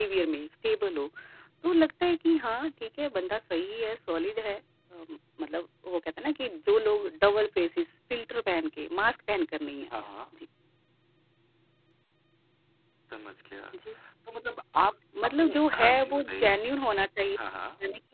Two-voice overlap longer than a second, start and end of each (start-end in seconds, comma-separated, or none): 15.2-16.5